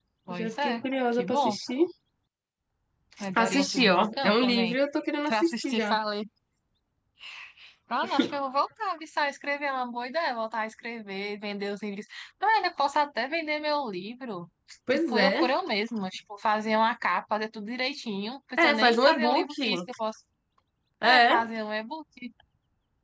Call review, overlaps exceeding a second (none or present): present